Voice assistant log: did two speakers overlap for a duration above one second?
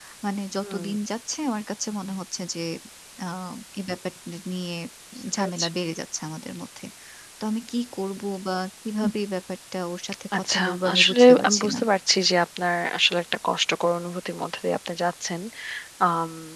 Yes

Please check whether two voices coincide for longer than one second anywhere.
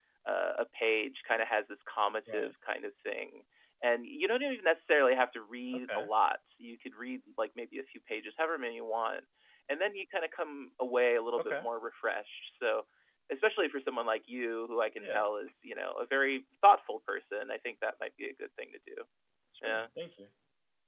No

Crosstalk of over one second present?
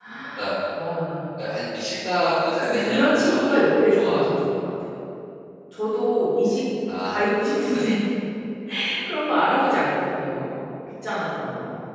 Yes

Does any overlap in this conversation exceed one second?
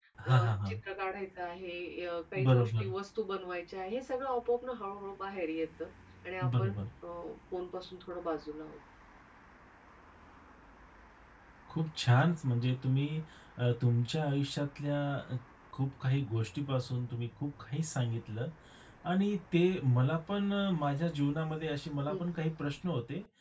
No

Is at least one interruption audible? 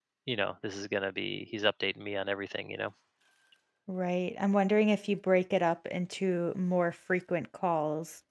No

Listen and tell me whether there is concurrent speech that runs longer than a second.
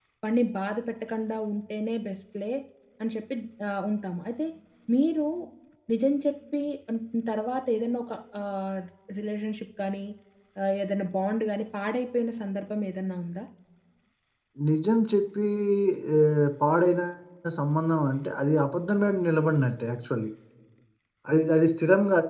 No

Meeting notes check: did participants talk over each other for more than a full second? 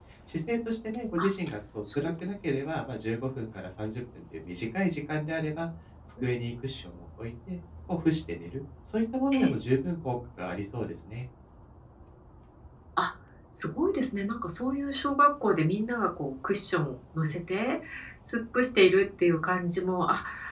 No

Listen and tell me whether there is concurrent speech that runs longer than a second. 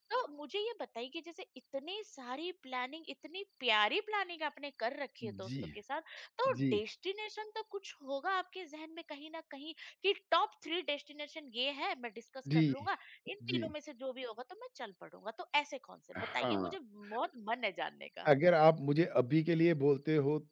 No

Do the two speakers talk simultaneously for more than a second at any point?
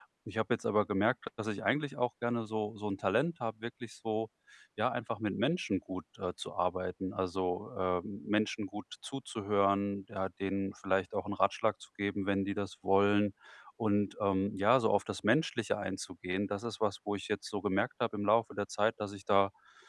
No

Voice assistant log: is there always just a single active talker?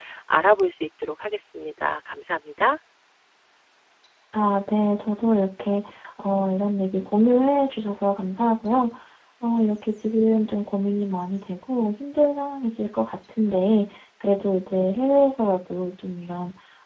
Yes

